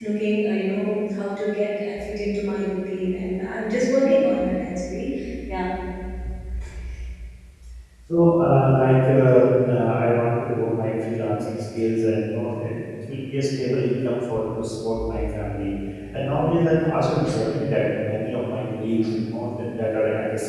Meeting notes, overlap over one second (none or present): none